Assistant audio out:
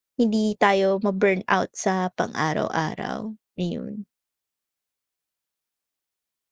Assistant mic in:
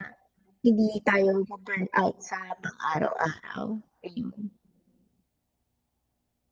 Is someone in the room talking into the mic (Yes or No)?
No